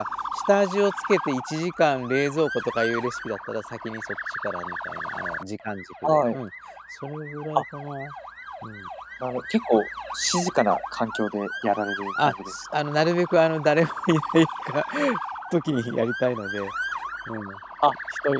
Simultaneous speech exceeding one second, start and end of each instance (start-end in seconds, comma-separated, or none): none